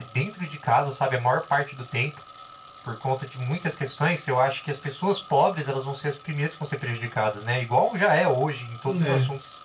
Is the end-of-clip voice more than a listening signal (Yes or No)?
No